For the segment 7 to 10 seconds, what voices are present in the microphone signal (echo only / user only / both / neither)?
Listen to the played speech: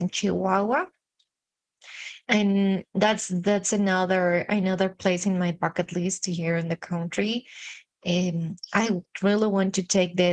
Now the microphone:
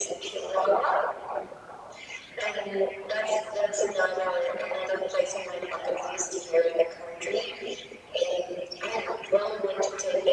echo only